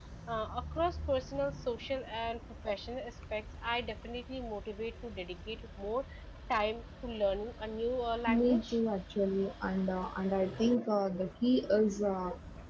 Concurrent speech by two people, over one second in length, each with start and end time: none

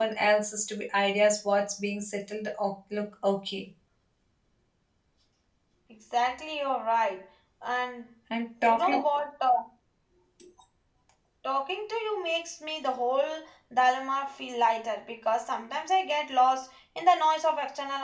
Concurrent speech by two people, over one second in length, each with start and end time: none

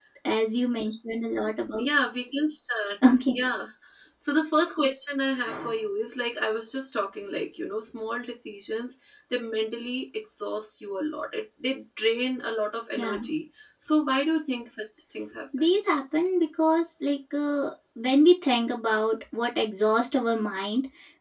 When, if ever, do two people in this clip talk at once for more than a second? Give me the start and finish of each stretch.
none

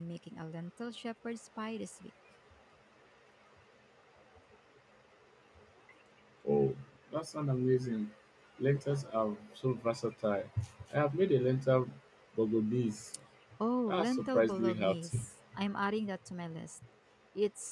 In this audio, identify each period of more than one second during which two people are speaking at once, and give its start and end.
13.9-15.2

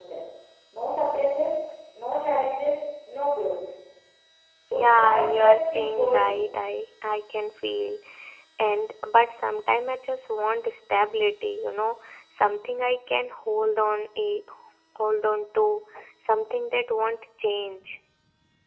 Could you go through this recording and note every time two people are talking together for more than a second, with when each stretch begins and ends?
4.8-6.3

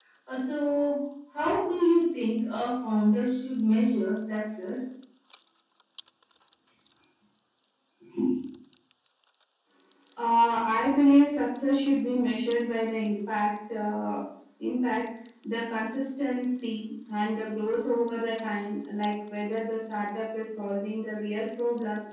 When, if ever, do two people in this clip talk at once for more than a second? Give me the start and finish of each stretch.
none

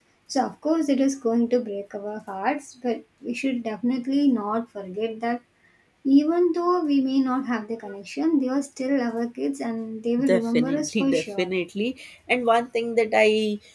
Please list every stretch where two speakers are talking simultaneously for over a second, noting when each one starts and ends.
10.2-11.5

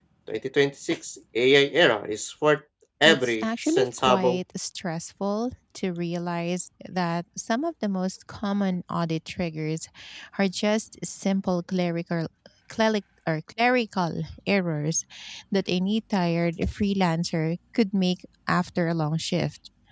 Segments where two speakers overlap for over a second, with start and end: 3.0-4.4

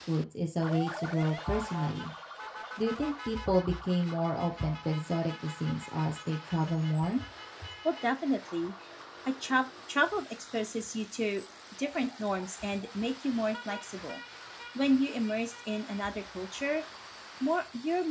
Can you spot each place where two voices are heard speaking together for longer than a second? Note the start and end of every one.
none

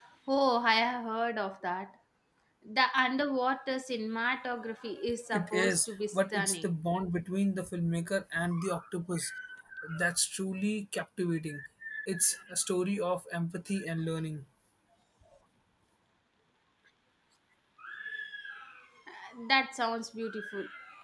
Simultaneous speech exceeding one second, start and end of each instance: 5.3-6.7

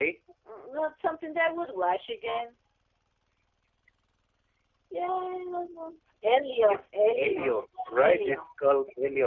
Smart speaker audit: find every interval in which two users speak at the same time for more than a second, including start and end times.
none

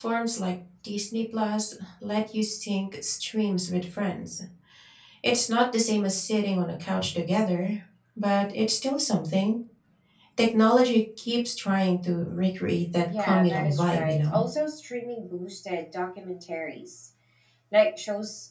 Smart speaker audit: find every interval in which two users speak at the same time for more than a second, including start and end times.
13.2-14.4

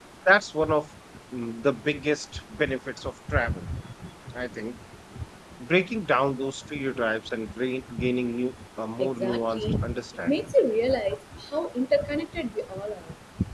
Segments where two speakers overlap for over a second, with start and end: 9.0-10.5

